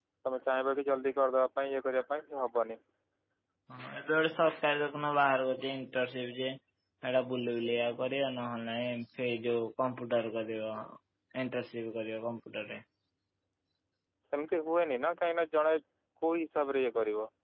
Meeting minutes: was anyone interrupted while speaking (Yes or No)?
No